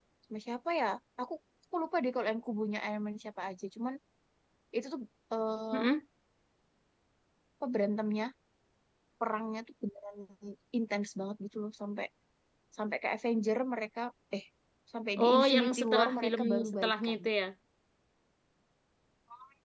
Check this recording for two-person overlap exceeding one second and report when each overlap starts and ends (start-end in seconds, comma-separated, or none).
15.2-17.2